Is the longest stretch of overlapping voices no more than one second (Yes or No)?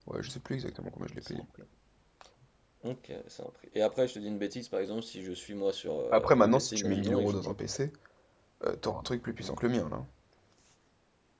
No